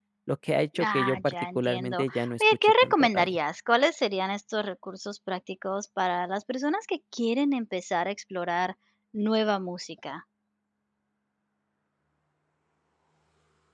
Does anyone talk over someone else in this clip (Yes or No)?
Yes